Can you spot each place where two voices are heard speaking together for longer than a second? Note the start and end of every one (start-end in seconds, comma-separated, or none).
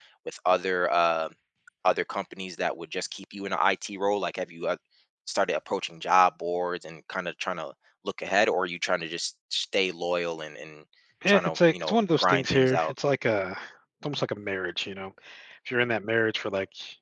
11.3-12.9